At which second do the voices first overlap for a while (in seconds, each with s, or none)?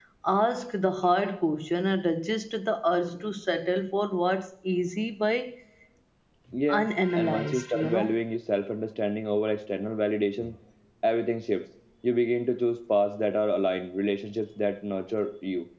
6.8 s